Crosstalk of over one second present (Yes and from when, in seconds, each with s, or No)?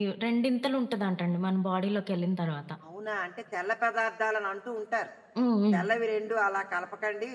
No